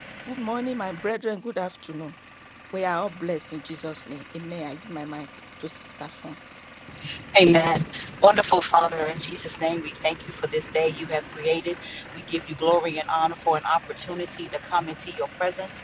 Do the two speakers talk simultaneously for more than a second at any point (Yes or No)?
No